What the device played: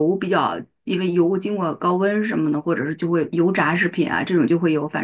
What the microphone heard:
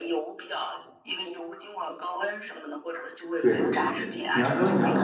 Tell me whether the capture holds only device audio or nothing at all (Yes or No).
No